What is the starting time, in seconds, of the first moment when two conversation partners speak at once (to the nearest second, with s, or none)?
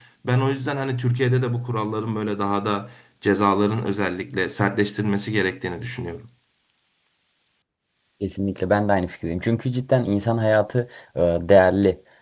none